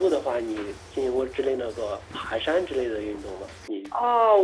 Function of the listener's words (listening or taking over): taking over